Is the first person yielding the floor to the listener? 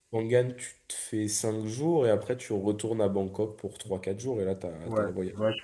Yes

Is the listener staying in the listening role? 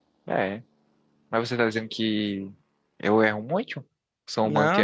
No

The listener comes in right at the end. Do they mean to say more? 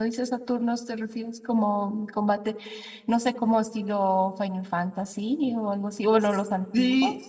Yes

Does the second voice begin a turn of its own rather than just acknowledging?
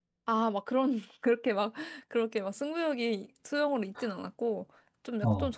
No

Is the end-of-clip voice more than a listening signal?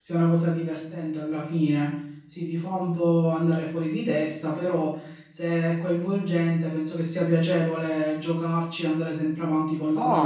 Yes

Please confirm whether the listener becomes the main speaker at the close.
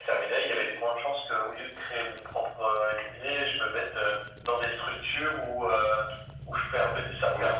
No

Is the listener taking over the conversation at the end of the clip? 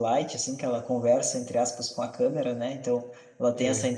No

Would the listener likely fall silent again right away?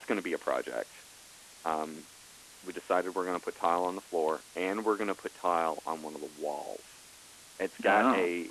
Yes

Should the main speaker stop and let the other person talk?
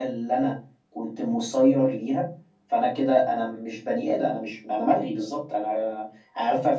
No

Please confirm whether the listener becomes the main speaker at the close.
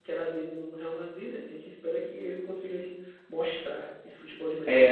Yes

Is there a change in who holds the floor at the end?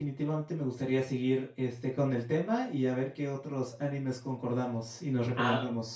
Yes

